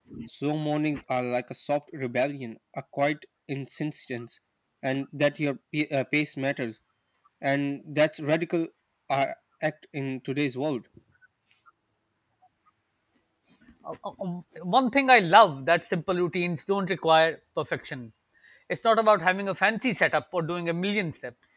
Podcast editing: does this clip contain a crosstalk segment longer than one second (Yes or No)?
No